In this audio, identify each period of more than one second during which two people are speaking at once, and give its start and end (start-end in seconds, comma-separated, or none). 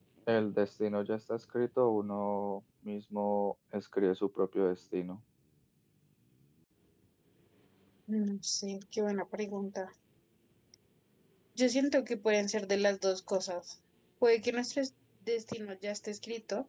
none